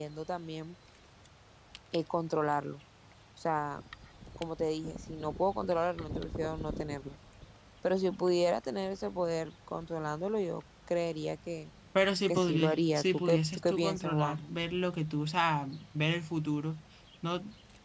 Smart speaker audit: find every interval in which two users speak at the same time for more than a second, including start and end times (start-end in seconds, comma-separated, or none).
12.3-14.5